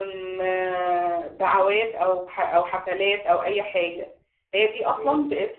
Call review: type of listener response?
listening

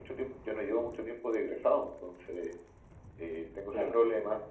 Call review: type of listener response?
listening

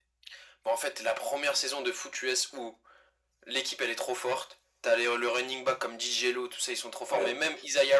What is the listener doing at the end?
listening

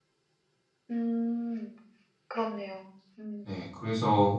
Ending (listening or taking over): taking over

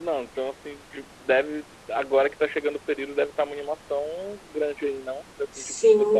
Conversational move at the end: taking over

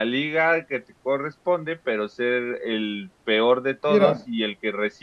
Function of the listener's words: listening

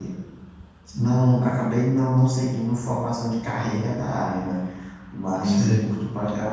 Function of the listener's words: listening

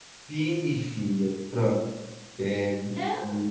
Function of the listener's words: listening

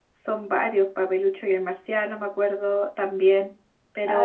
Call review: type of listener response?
taking over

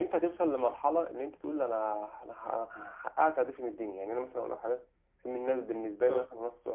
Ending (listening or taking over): listening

